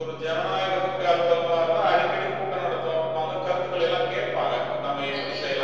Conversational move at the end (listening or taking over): listening